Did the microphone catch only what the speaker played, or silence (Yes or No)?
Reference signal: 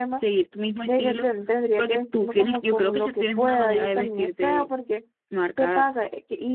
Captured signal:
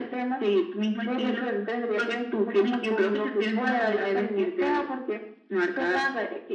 Yes